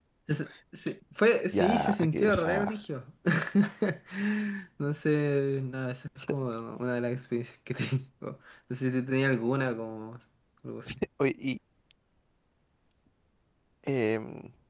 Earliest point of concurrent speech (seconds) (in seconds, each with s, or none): 1.5 s